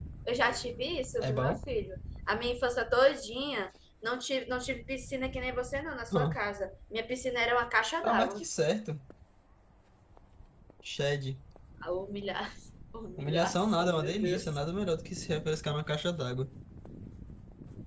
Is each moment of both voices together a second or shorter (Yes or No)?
No